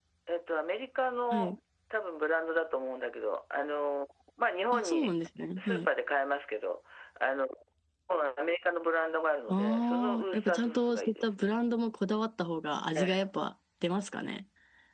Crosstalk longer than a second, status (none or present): present